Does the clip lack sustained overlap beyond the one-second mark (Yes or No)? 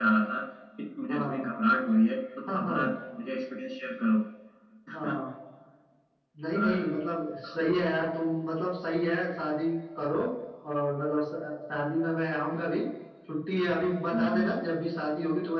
Yes